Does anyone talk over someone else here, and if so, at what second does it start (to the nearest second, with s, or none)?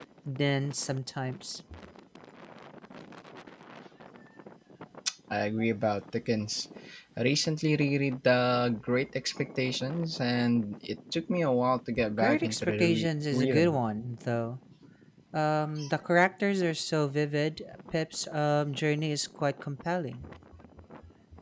12 s